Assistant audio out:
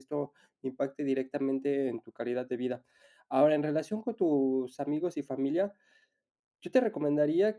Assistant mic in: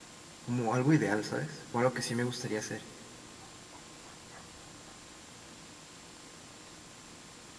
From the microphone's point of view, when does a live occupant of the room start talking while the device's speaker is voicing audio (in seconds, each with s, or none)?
0.4 s